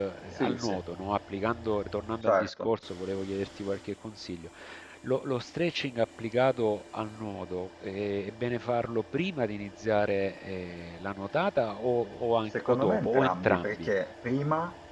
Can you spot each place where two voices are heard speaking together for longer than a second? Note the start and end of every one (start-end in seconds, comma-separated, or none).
12.6-13.9